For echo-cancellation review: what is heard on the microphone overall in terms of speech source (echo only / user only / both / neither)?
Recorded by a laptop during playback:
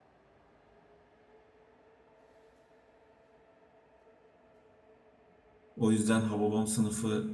user only